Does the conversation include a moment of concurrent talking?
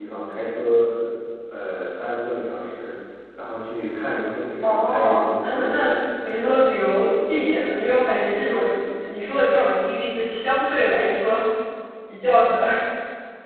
Yes, from 4.6 s

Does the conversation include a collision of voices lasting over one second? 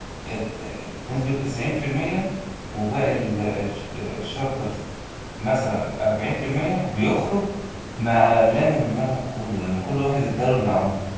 No

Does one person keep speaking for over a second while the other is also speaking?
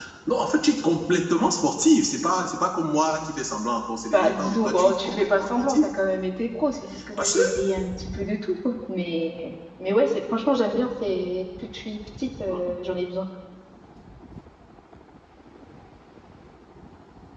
Yes, from 4.1 s

